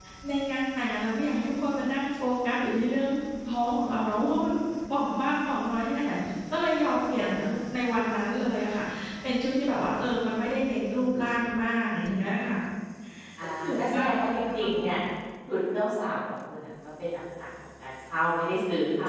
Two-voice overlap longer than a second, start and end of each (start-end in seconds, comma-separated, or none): 13.6-14.8